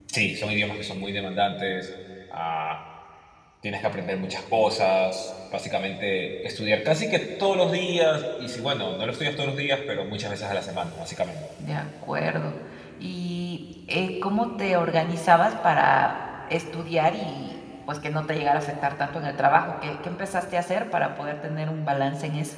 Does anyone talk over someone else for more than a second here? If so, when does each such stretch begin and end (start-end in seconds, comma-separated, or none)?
none